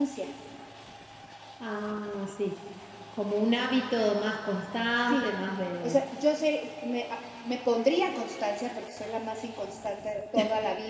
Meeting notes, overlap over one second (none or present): none